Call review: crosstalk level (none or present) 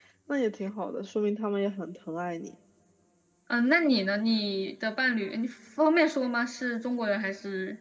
none